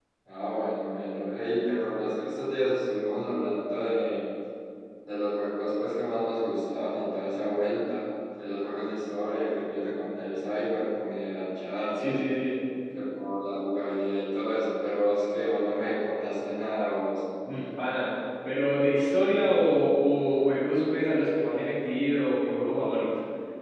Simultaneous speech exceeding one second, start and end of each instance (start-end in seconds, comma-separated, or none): none